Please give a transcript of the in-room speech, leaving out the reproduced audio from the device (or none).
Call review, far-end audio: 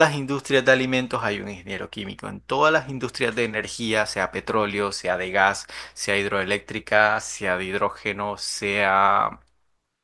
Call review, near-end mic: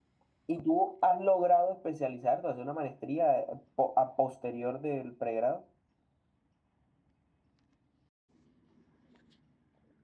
¿Y tú has logrado especializarte, hacer una maestría eh, po- a posterior del pregrado?